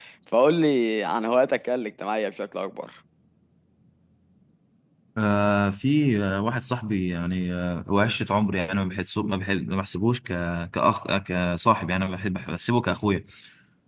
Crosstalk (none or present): none